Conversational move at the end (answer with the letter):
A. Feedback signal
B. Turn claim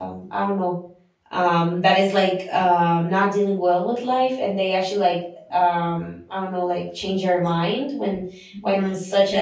A